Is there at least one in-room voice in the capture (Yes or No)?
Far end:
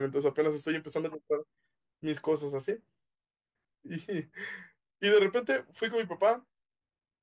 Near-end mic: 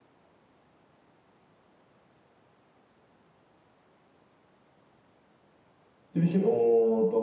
Yes